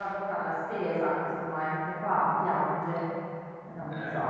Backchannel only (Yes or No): No